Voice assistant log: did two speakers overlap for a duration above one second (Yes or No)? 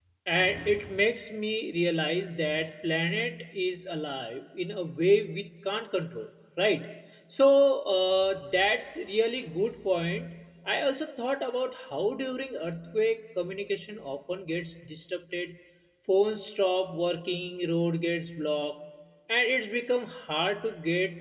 No